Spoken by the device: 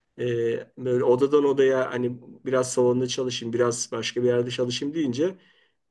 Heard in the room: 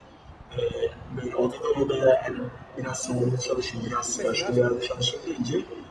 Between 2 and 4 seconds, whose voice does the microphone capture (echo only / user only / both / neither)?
echo only